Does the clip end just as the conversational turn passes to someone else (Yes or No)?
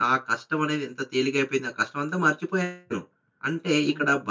No